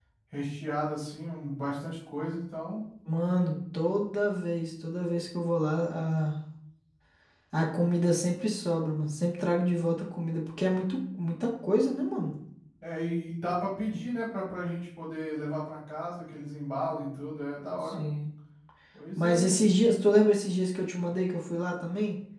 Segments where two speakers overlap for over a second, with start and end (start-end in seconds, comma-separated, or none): none